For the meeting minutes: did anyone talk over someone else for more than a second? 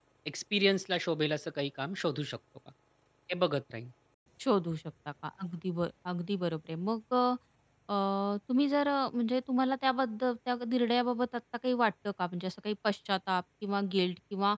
No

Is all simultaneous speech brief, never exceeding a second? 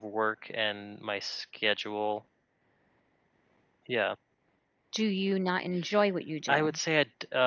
Yes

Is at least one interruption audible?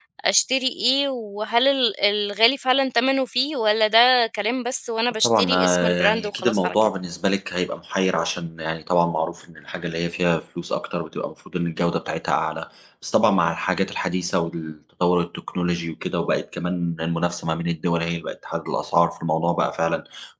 Yes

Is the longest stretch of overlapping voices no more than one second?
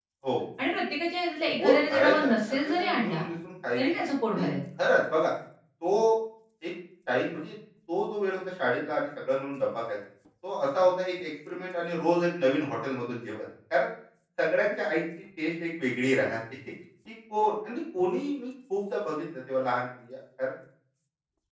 No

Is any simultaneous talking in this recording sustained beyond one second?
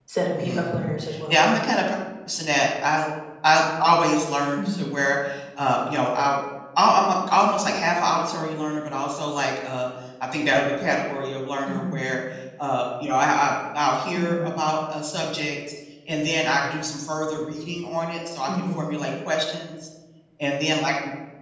No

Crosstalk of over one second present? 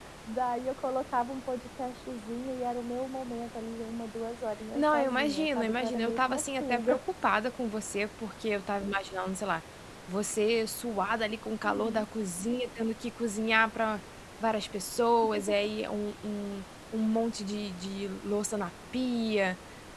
Yes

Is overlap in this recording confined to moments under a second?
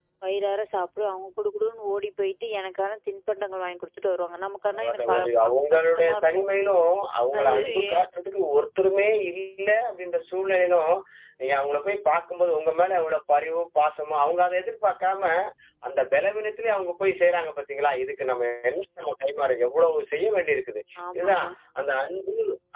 No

